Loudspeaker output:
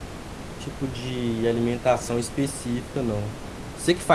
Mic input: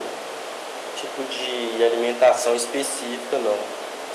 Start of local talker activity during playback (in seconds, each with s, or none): none